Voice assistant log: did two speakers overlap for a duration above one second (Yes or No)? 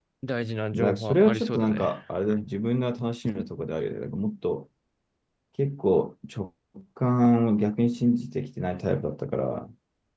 Yes